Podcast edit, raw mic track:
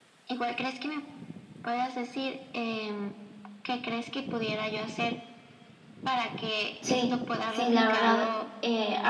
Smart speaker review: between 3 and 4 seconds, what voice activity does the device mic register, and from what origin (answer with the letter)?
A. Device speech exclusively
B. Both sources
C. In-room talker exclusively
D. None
A